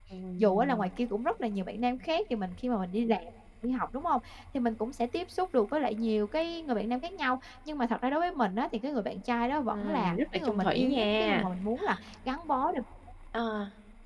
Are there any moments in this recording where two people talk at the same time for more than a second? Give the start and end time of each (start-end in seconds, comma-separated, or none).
9.7-11.5